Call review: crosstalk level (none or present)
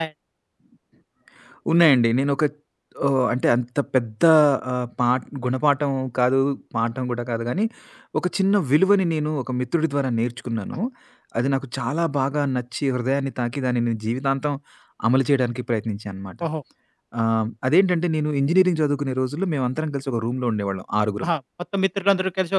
none